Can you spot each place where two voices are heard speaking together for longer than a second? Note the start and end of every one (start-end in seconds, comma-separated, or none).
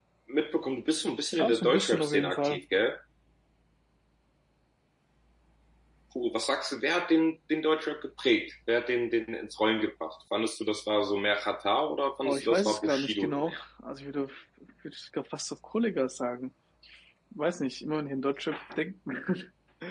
1.4-2.6, 12.2-13.6